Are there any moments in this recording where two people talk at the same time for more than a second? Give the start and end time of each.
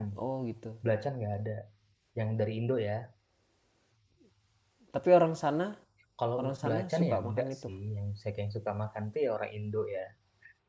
6.4-7.7

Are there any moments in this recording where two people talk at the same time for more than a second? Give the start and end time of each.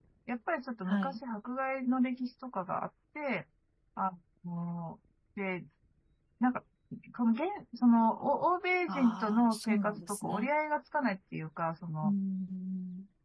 8.9-10.5

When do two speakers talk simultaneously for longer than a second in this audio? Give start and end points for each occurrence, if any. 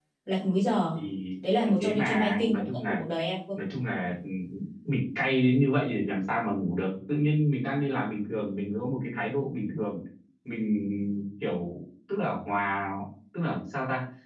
1.6-3.0

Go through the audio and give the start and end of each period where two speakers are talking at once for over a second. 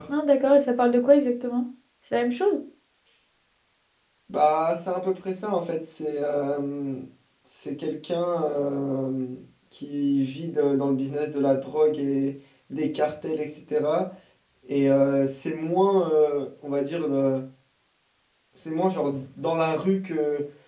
none

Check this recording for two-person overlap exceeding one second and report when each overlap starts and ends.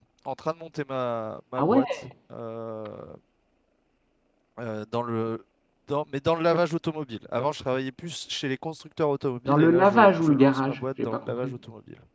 9.4-11.5

